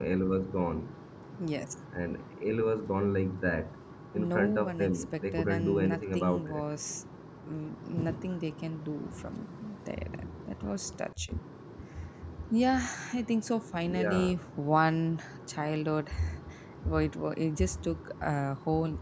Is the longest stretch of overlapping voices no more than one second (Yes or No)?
No